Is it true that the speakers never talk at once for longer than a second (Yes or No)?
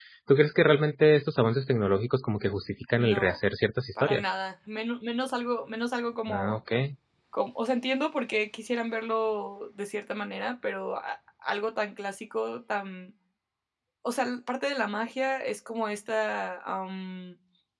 Yes